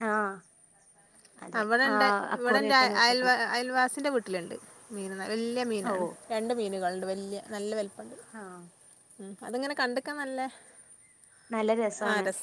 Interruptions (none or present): present